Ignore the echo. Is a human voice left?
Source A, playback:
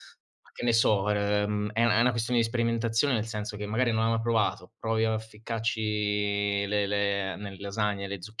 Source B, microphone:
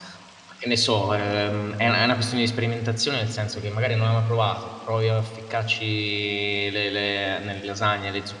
No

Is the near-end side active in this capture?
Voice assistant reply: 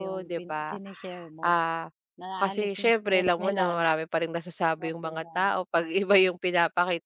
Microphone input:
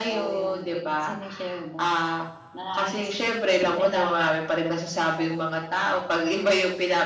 No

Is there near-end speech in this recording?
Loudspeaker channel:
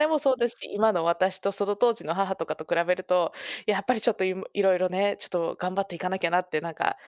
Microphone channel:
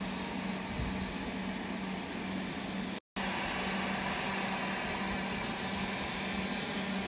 No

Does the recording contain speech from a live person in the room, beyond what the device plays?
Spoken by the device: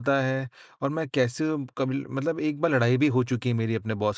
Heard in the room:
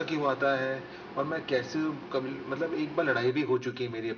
No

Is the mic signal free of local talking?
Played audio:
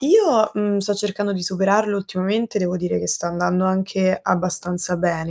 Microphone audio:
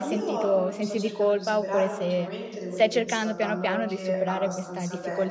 No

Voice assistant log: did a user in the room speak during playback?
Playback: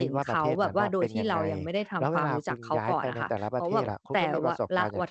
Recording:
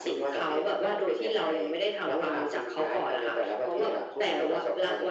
No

